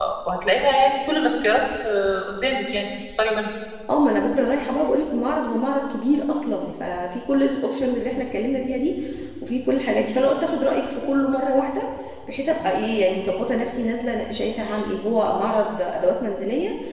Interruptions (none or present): none